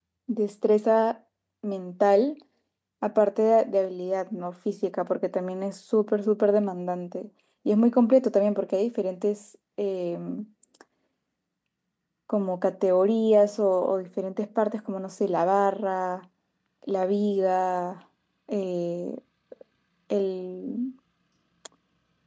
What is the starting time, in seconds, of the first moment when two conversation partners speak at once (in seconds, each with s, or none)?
none